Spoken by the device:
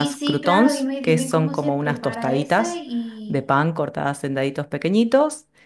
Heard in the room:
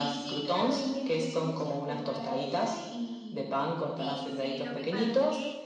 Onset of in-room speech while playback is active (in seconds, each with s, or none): 3.9 s